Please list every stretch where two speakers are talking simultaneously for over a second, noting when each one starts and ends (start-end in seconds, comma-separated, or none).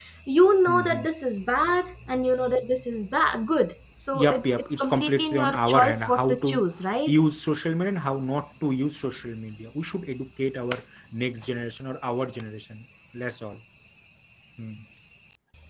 4.1-6.6